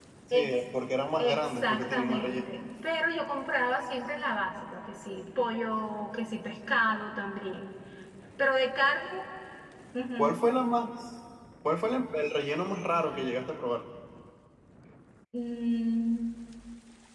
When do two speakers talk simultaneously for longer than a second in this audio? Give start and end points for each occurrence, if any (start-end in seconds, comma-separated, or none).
1.2-2.7